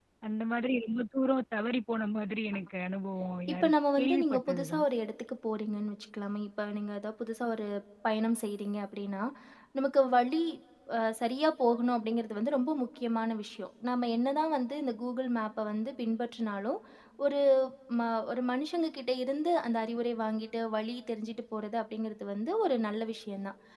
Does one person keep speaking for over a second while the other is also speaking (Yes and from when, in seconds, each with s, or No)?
Yes, from 3.5 s